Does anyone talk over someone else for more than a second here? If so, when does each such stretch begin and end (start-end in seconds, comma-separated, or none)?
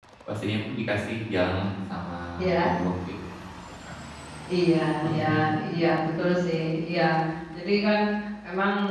none